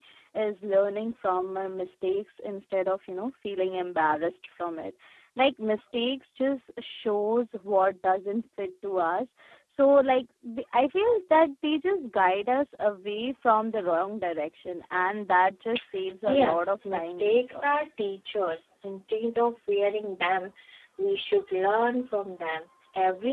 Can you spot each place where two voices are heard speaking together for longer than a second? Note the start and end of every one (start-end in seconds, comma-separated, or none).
16.3-17.7